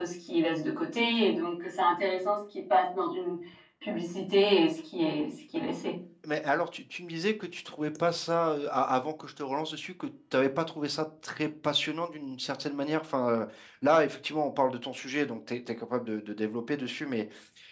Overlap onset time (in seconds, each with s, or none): none